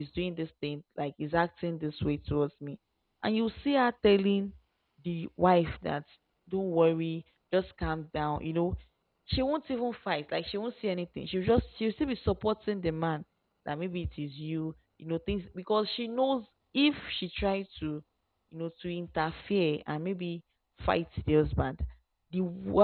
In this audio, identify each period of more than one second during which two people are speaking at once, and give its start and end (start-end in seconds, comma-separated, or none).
none